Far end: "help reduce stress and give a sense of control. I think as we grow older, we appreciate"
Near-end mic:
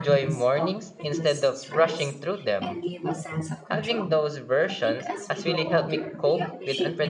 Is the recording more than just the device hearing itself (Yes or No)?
Yes